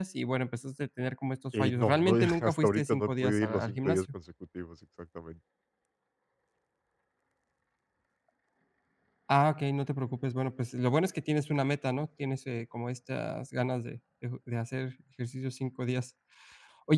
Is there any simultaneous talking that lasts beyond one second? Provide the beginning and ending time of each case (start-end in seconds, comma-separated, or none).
1.6-4.1